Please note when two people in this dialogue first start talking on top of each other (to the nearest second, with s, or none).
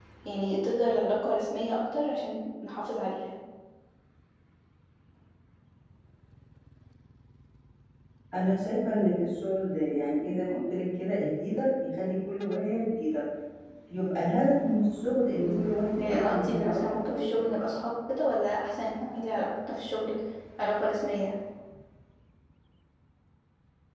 15 s